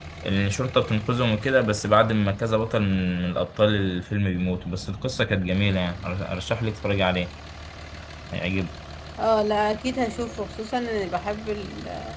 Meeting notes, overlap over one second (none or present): none